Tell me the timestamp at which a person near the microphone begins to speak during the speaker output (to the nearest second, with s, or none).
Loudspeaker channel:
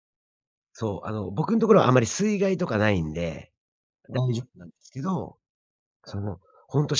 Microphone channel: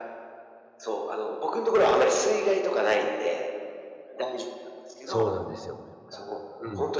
5 s